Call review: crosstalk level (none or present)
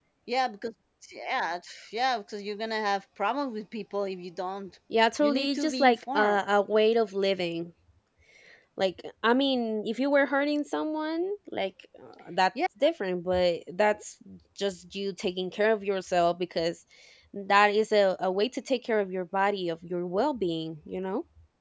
present